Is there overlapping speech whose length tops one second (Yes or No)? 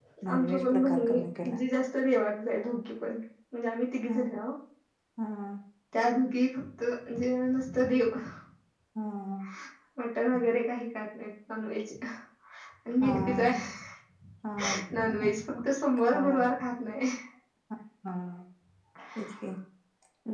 Yes